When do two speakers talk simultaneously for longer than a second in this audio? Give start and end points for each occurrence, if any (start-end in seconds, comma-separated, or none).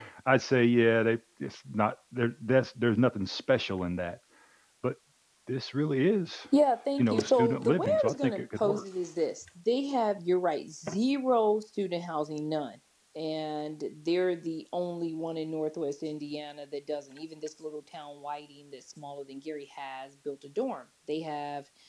7.0-8.8